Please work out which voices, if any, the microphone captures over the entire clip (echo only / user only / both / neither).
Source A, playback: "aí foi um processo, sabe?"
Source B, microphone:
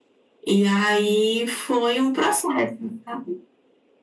echo only